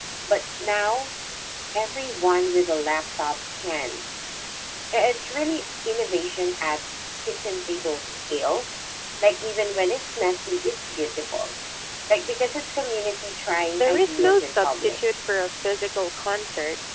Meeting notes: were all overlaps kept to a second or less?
No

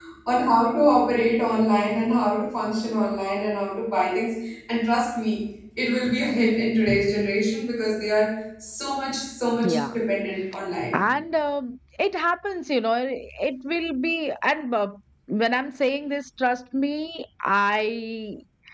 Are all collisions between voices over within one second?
Yes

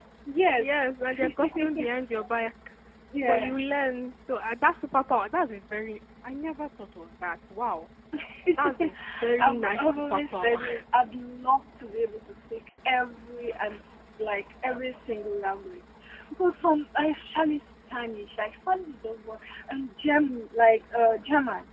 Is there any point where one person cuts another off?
Yes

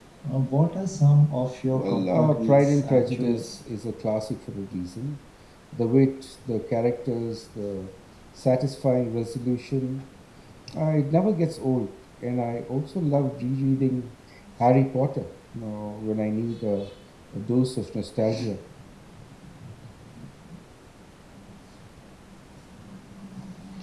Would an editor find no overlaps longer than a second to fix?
No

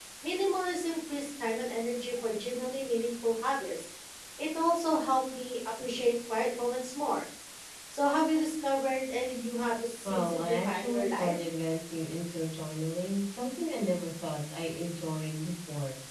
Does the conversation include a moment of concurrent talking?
Yes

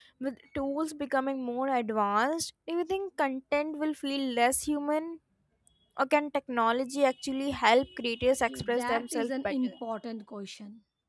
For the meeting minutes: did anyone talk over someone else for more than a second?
Yes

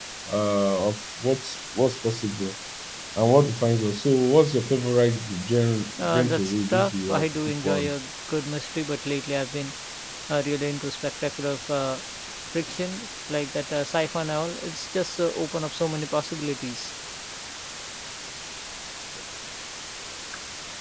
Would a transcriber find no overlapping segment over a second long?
No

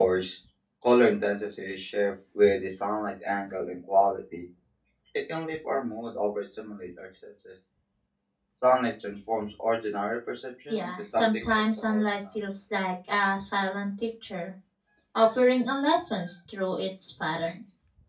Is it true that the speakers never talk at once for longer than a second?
No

